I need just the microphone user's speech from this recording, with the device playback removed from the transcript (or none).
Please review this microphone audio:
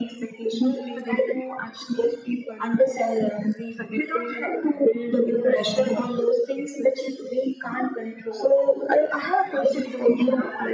none